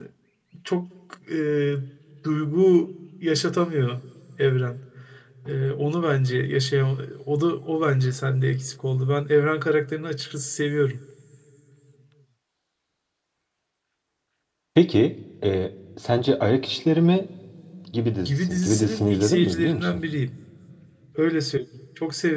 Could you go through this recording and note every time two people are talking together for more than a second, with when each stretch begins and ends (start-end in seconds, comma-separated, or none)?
18.2-20.0